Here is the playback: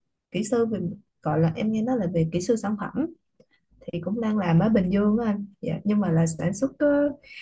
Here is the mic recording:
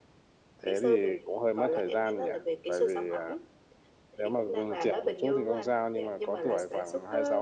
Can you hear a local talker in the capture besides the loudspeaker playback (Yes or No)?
Yes